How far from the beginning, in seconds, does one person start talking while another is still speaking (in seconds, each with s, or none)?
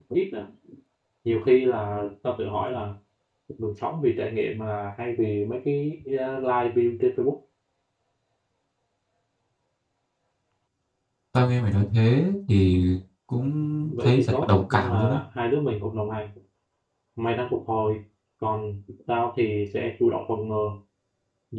13.9 s